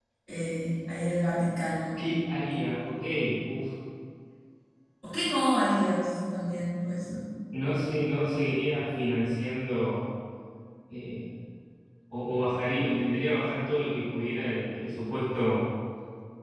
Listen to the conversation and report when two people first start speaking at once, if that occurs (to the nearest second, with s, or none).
none